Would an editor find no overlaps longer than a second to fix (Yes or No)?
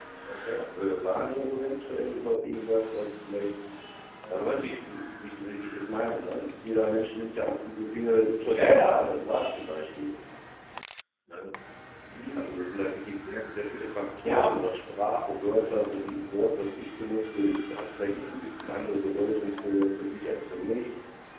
Yes